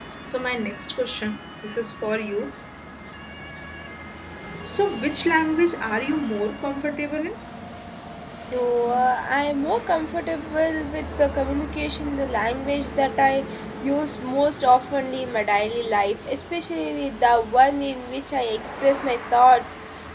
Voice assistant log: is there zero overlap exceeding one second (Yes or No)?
Yes